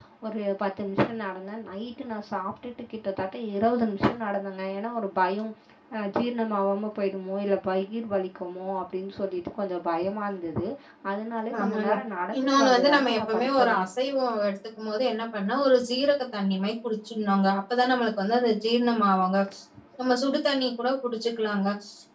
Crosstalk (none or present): present